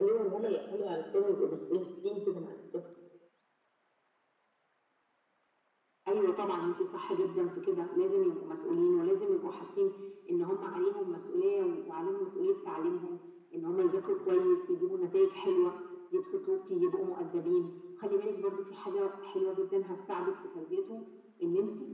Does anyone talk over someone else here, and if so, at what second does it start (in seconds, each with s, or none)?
none